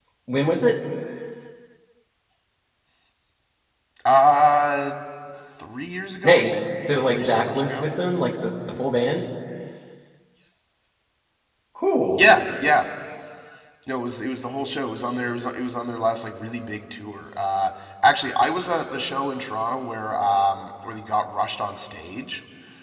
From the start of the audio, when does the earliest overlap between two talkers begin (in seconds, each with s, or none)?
6.2 s